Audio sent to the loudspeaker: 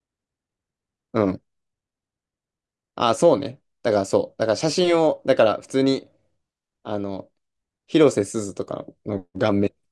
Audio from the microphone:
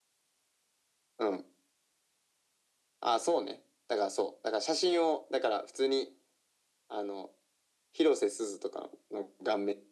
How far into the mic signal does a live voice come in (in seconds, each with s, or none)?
none